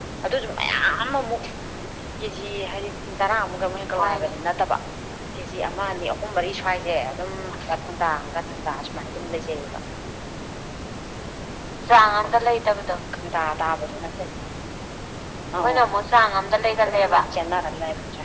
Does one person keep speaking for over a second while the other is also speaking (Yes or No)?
No